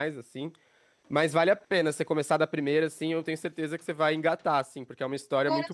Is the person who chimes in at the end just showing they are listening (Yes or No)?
Yes